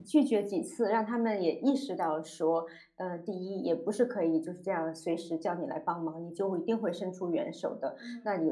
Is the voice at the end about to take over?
No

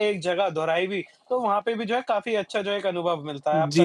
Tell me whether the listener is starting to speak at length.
Yes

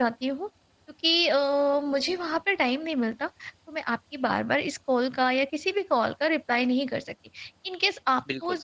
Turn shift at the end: No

